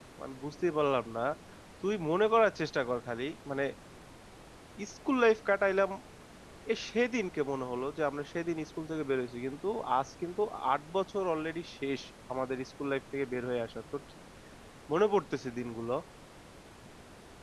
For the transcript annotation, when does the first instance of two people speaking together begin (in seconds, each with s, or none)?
none